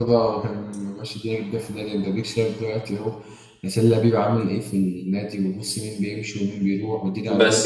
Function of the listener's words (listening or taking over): taking over